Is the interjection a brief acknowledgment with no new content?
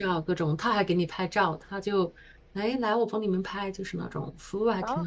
No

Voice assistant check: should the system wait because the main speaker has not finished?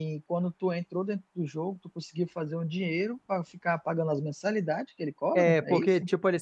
No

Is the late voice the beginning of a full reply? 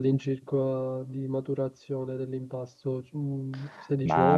Yes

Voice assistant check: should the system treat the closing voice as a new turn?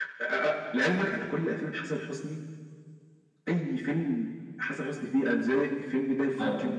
Yes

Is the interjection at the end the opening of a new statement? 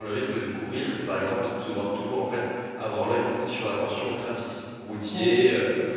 No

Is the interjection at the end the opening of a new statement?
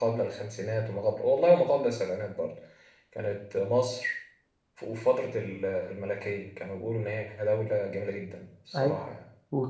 Yes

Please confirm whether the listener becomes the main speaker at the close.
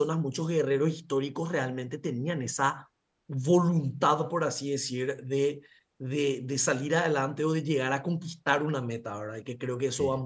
No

